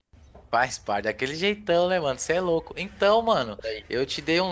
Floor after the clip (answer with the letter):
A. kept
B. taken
A